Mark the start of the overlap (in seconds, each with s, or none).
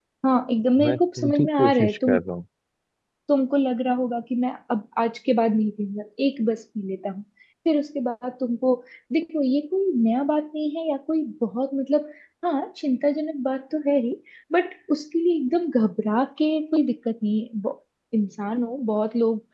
0.9 s